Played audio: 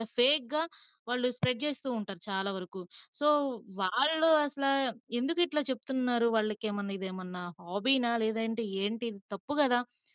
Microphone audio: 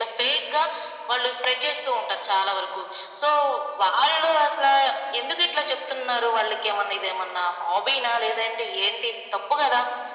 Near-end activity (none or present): none